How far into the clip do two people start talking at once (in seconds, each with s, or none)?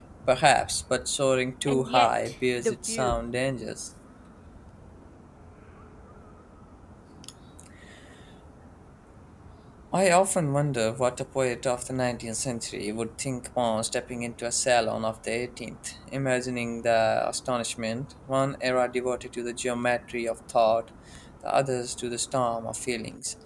1.7 s